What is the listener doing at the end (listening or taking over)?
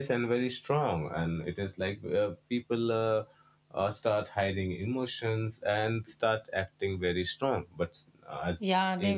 taking over